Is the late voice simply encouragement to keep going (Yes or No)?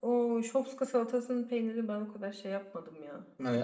No